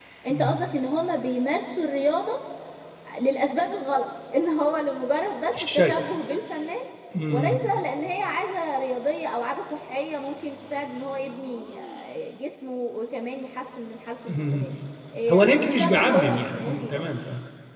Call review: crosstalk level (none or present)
present